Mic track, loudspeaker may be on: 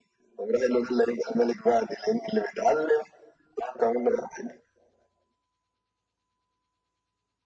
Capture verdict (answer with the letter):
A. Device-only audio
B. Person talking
A